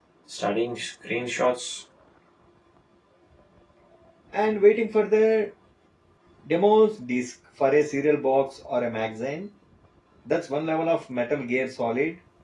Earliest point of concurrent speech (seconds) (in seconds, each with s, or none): none